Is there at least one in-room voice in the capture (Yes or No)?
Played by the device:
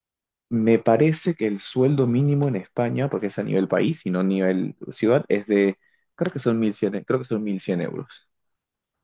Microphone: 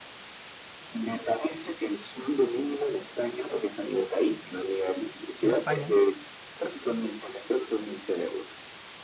Yes